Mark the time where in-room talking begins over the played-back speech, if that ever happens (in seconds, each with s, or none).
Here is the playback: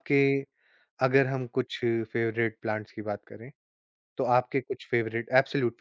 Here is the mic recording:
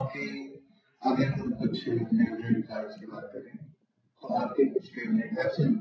none